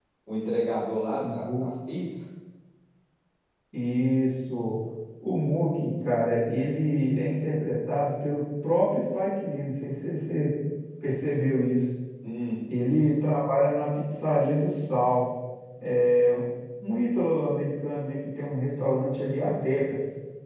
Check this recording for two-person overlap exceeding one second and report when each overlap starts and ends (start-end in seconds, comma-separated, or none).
none